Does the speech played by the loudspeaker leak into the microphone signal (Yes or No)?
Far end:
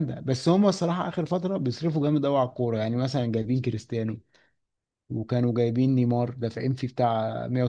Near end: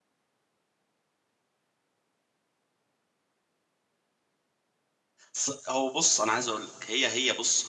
No